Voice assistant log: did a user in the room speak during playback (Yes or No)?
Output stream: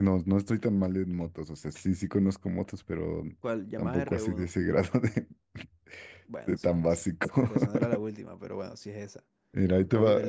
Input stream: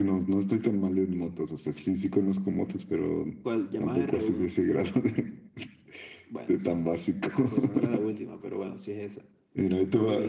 No